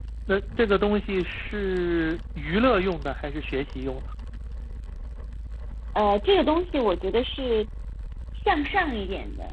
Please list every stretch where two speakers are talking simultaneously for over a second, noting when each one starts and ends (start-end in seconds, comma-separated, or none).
none